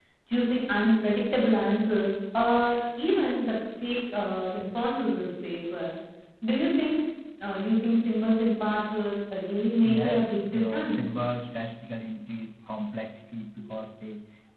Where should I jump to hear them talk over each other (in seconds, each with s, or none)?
9.8 s